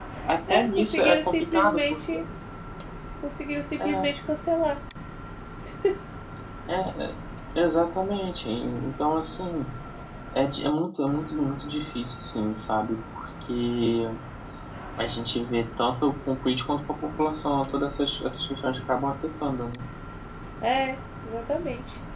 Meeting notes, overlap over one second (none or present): present